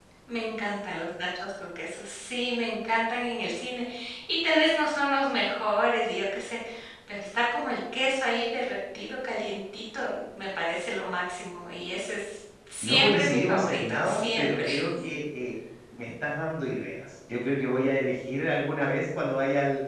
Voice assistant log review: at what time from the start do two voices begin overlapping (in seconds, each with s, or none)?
12.8 s